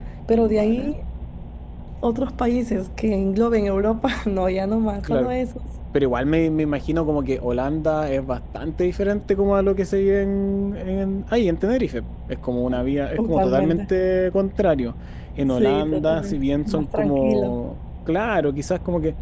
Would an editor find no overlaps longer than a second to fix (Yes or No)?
No